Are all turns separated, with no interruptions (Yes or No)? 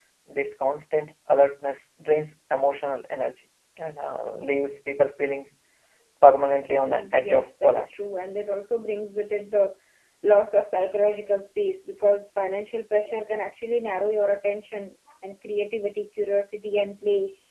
No